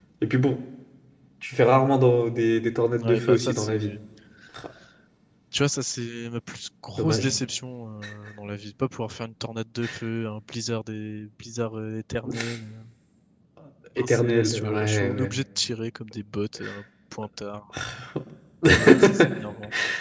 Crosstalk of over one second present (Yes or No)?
Yes